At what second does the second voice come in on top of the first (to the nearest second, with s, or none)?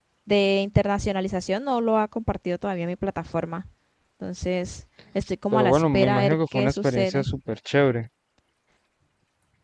6 s